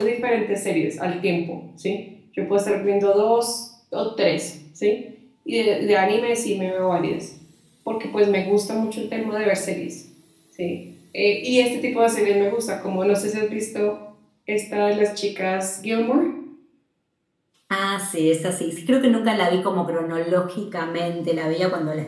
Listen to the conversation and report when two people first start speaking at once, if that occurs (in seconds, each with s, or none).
none